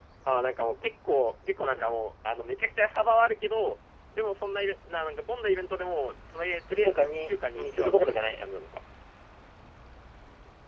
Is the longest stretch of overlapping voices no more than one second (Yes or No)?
No